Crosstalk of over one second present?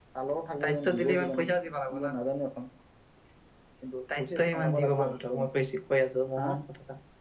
Yes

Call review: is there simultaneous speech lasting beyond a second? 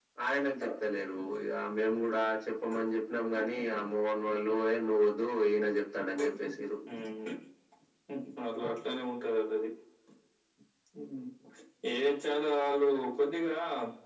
No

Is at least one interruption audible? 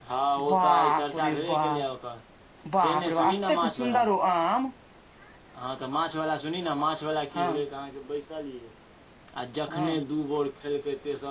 Yes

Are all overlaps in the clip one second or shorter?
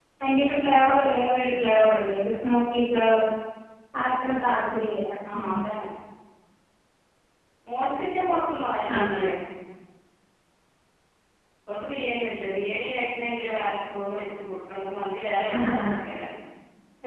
Yes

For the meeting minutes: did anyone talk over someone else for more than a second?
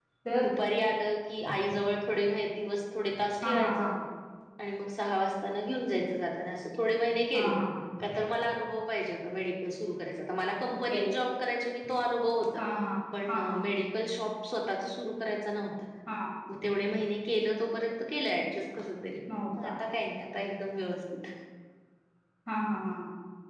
No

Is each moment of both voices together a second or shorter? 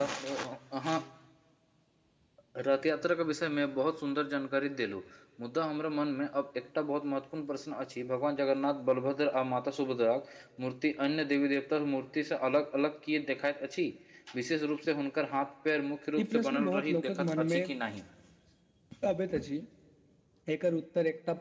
No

